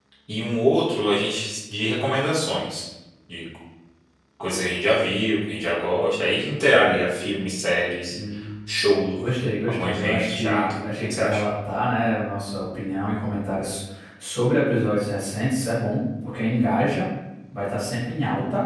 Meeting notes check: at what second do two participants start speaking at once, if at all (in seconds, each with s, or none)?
9.7 s